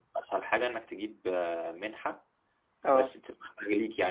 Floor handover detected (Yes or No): No